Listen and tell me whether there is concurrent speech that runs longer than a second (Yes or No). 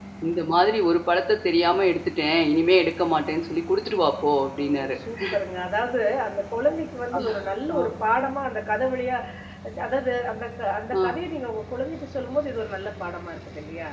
No